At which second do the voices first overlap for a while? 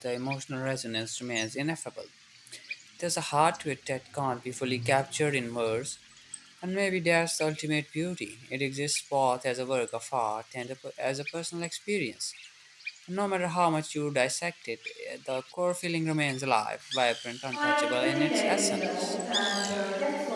18 s

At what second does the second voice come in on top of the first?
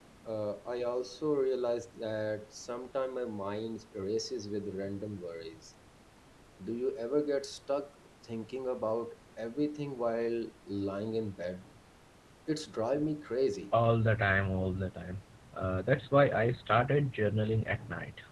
none

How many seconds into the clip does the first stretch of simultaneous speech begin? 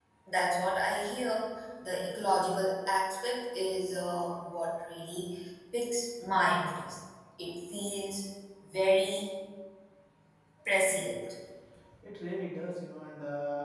none

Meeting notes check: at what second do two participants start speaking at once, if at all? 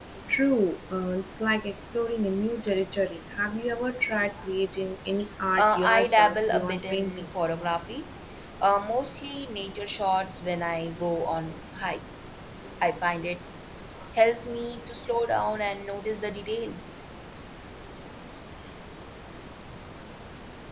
6 s

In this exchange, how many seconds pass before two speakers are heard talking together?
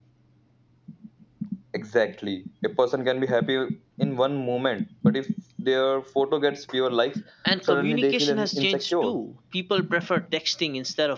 8 s

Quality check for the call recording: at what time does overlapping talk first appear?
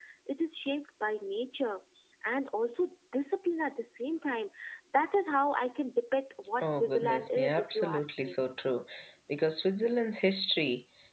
7 s

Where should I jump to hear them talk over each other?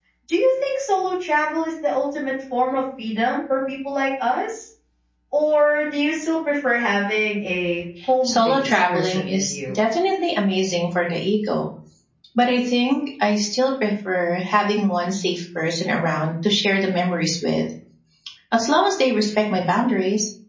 8 s

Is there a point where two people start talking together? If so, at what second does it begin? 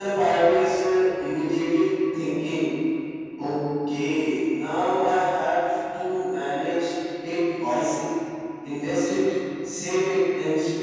none

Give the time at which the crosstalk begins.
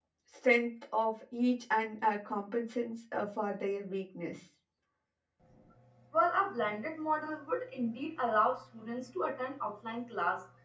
none

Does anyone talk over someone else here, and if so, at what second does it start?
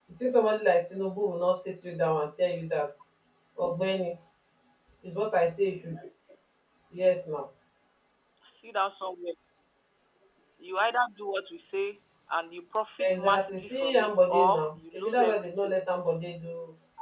13 s

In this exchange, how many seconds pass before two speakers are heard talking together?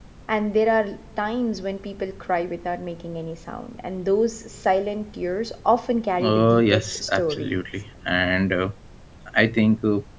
6 s

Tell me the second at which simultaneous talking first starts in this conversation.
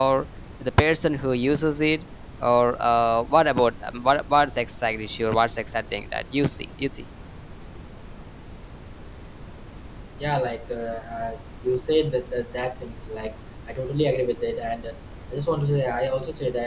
none

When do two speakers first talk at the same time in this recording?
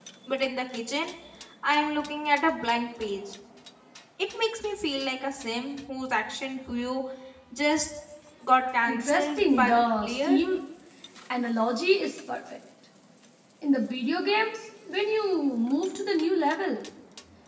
9 s

